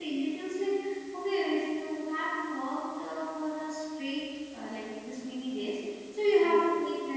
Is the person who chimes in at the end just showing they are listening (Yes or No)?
Yes